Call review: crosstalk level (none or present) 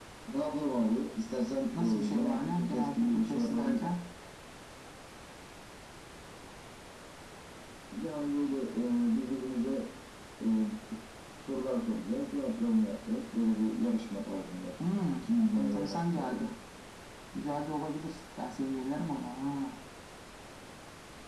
present